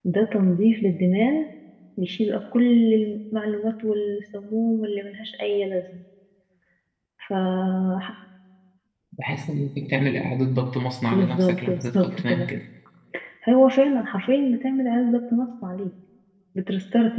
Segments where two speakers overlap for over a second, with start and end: 11.1-12.5

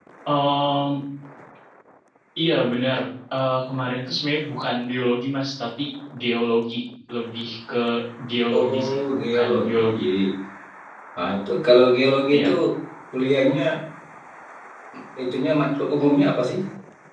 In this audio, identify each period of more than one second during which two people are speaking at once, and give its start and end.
8.6-10.0

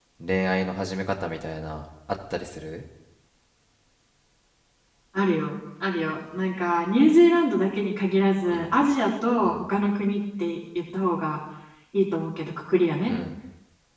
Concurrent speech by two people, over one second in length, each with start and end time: none

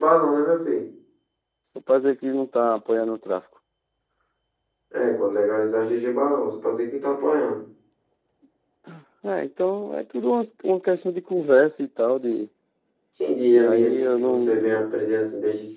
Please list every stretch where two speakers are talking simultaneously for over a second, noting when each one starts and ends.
13.5-14.8

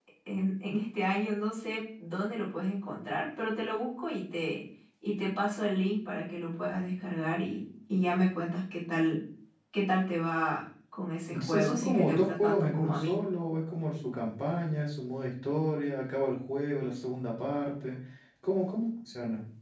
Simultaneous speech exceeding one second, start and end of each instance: 11.3-13.2

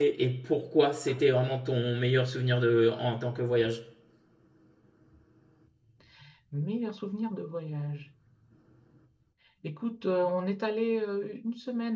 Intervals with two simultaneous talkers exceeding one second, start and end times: none

